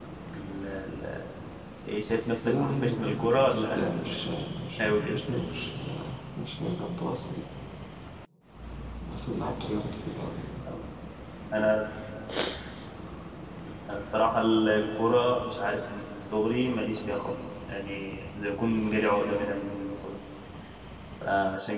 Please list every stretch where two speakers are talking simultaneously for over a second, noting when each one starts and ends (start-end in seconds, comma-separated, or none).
2.4-3.9